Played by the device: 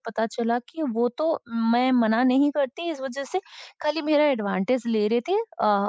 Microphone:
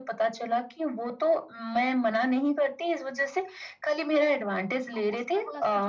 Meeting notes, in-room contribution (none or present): present